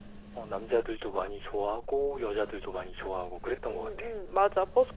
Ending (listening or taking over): taking over